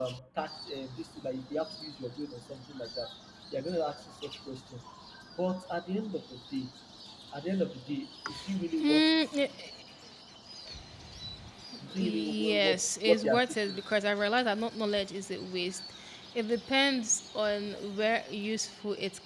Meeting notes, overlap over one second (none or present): present